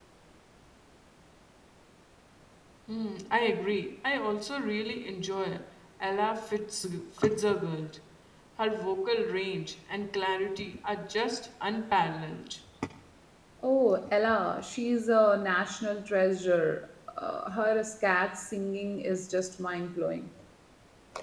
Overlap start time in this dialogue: none

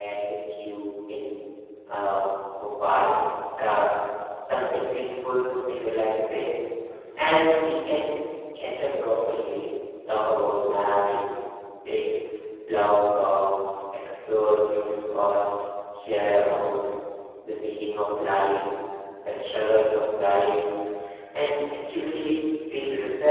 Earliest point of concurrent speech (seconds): none

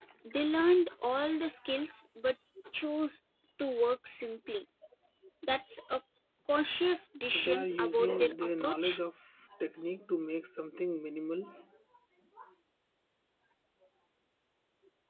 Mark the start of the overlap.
7 s

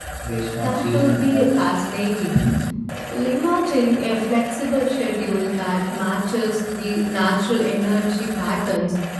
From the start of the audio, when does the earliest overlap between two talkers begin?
1 s

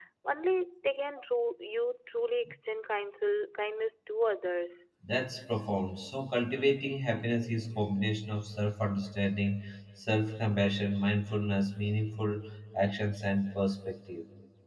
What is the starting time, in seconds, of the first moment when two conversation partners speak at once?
none

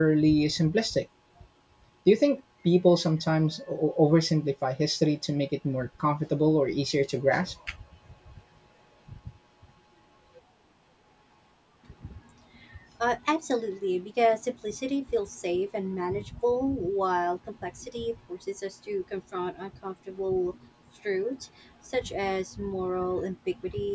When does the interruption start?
none

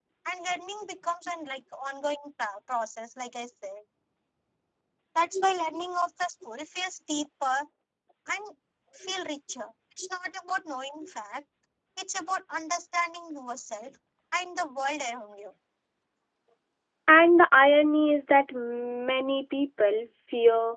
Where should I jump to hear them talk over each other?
none

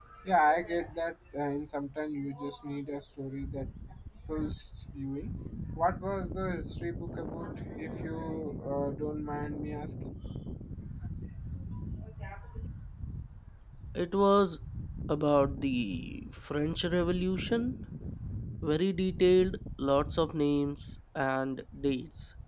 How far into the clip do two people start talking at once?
none

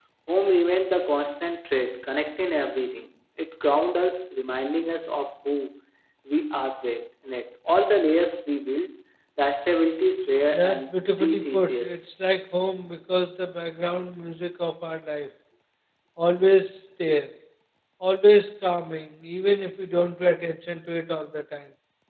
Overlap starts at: 11 s

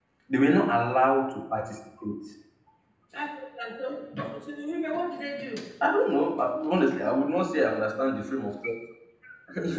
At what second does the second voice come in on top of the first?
none

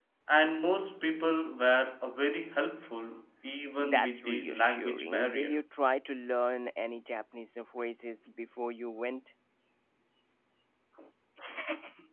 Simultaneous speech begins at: 4 s

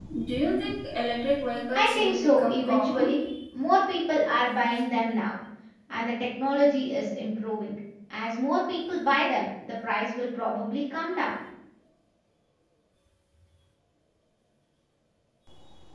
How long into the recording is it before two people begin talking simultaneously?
2 s

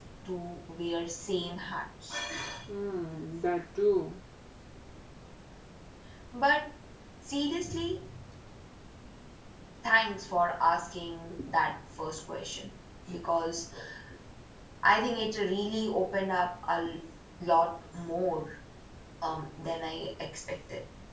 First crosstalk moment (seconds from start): none

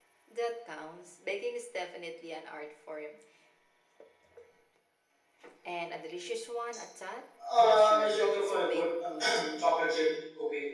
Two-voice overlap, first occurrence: 7 s

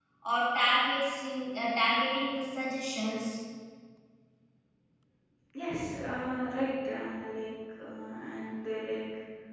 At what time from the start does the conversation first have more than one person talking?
none

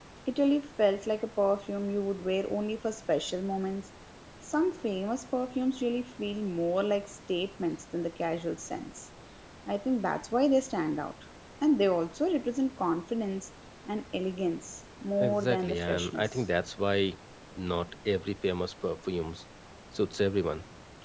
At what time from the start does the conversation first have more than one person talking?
15 s

